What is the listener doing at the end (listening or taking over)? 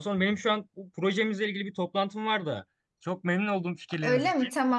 taking over